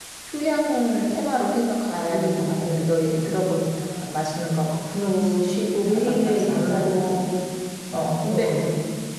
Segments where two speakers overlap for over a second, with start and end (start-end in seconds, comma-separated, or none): 5.1-7.0